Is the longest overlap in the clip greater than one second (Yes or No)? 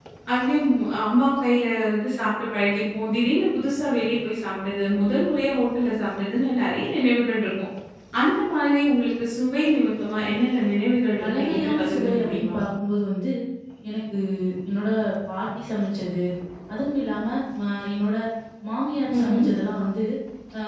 Yes